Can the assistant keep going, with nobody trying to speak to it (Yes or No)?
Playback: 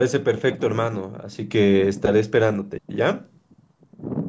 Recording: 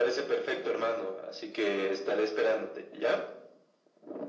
Yes